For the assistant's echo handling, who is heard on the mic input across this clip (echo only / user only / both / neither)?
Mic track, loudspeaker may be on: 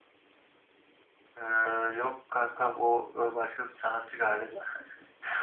echo only